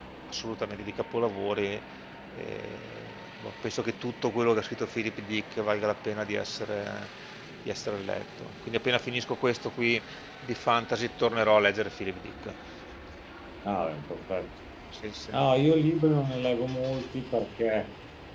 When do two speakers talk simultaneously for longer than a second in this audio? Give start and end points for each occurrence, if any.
none

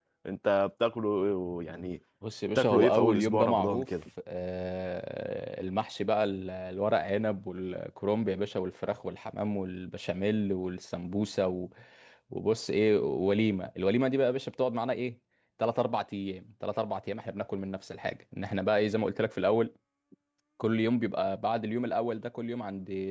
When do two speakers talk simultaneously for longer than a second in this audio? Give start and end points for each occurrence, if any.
2.6-3.9

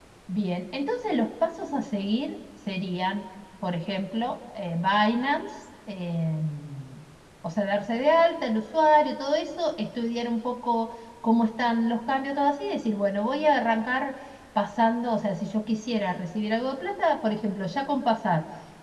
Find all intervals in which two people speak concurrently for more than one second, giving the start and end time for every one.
none

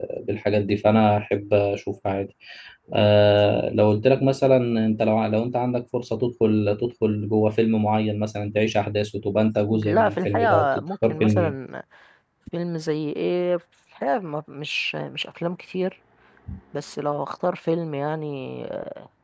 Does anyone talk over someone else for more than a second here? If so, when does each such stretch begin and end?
9.7-11.6

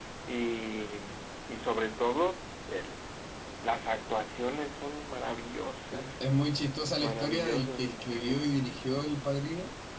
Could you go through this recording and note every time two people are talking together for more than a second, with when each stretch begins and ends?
7.0-8.3

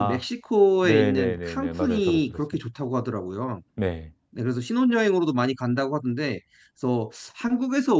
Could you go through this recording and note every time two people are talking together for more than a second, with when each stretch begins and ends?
0.8-2.4

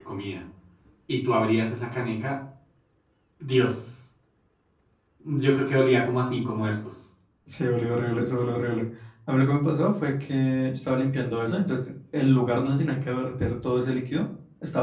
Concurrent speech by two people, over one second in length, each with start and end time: none

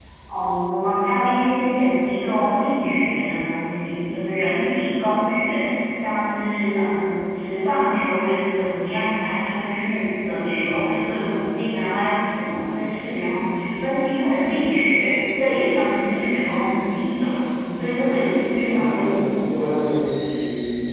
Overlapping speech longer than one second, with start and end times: none

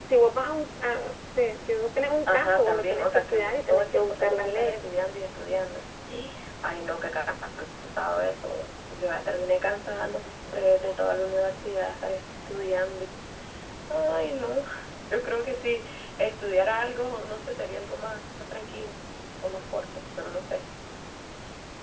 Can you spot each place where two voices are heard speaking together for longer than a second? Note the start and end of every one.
2.3-4.8

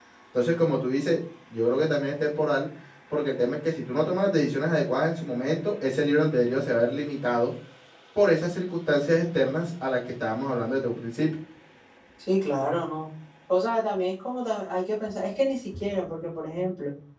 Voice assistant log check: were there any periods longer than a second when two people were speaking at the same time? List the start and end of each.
none

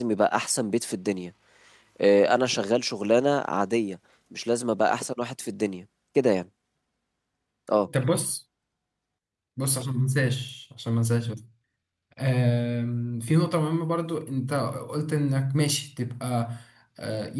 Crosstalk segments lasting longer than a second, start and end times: none

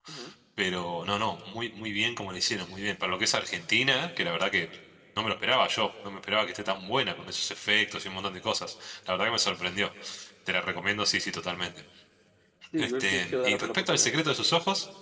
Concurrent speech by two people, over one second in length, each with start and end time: 12.8-14.1

